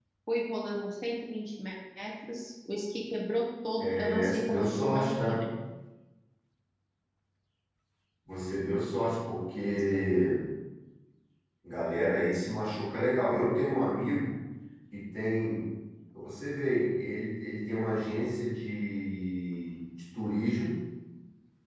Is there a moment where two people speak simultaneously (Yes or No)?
Yes